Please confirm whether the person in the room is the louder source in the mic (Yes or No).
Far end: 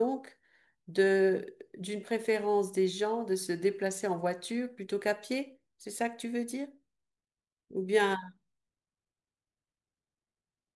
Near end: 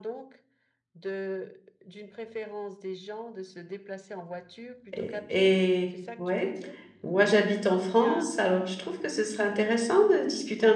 Yes